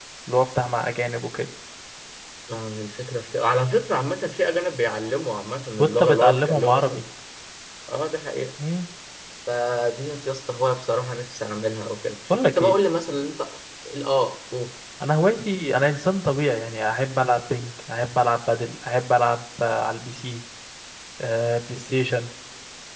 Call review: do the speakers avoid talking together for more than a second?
No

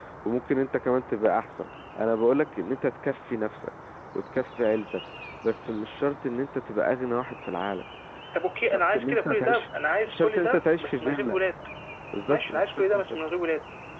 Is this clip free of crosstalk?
No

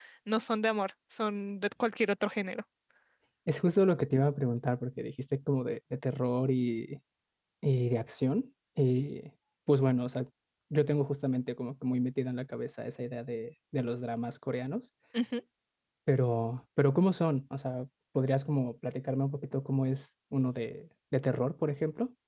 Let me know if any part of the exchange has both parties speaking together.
No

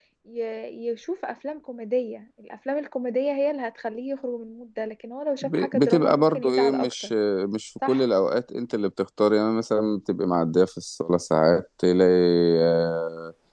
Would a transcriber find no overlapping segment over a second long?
No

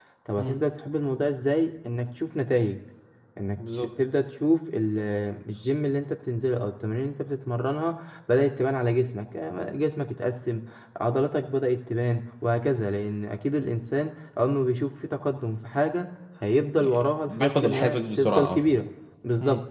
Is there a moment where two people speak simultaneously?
Yes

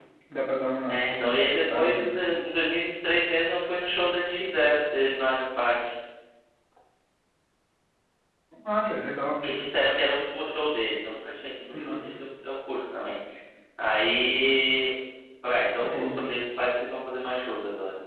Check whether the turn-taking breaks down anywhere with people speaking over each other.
Yes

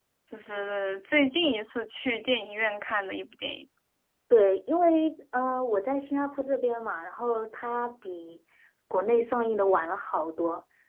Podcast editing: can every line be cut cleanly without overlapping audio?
Yes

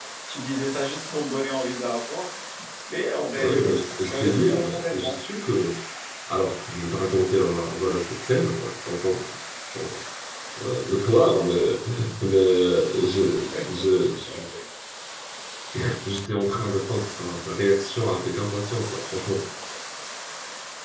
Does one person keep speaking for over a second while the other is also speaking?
Yes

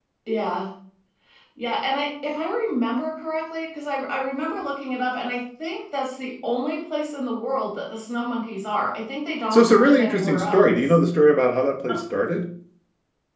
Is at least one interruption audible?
Yes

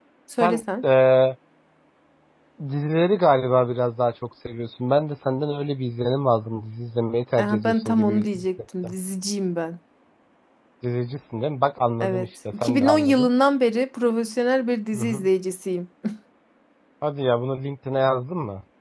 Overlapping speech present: Yes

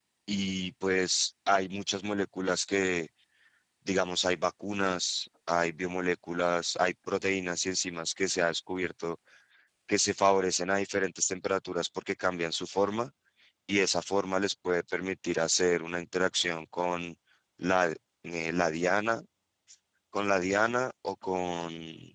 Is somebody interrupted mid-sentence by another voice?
No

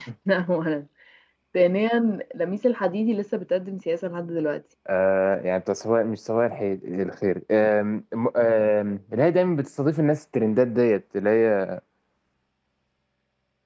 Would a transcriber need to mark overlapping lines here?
No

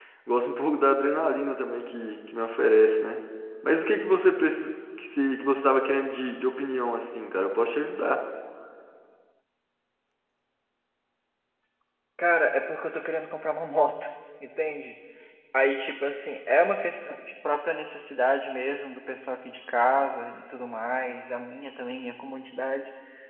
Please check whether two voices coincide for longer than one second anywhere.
No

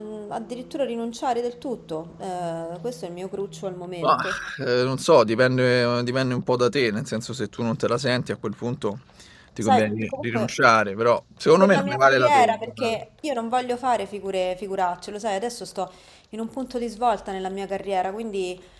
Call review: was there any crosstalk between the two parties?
Yes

